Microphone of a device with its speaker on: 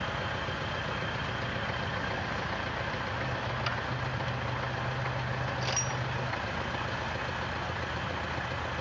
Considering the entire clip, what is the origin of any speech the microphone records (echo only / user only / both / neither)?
neither